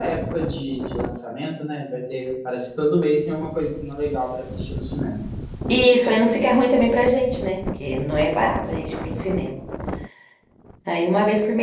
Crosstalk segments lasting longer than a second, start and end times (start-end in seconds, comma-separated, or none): none